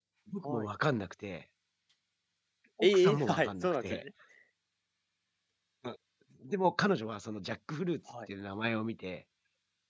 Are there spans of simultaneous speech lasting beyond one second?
Yes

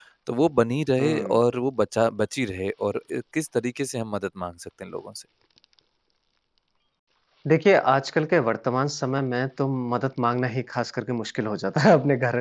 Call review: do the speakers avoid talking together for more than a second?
Yes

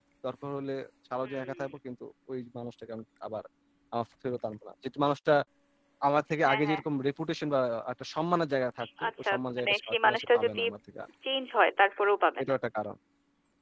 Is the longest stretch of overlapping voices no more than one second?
No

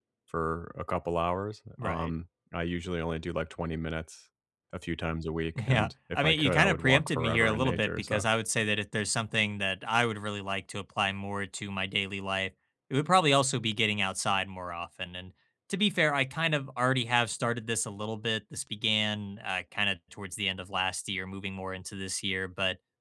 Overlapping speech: Yes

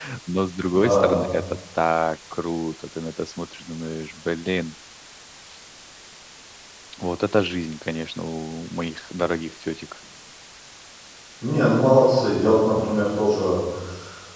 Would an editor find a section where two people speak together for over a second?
No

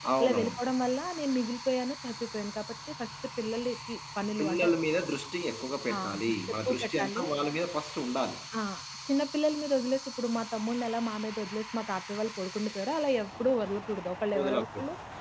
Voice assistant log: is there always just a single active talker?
No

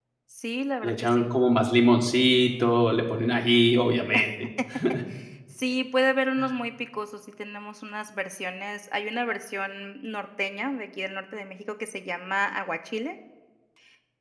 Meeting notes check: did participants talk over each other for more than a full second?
No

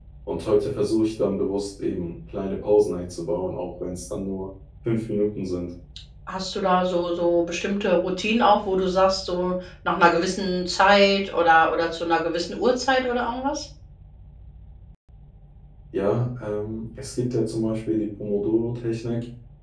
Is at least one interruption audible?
No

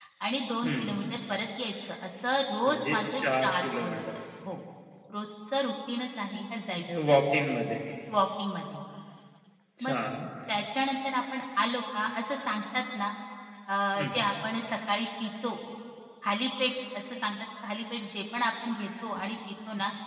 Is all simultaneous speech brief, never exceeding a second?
No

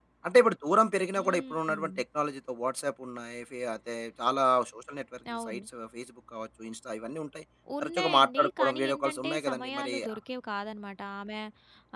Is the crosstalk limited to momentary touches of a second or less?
No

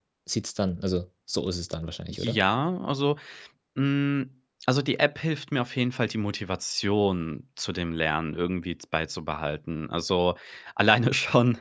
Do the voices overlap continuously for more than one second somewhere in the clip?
No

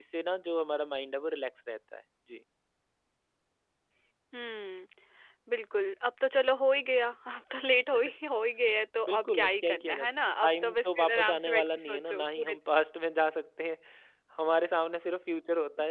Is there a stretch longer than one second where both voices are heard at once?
Yes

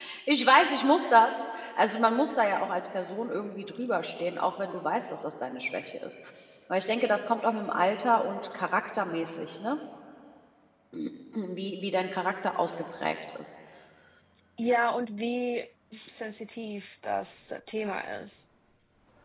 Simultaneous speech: No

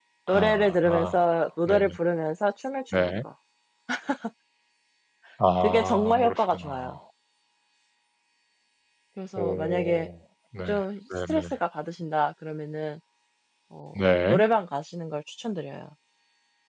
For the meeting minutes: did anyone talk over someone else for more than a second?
Yes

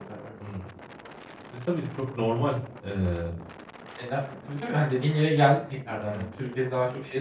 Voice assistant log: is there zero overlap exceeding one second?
Yes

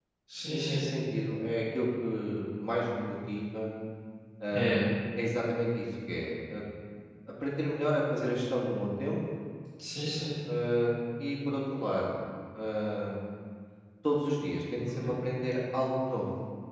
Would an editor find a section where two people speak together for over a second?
No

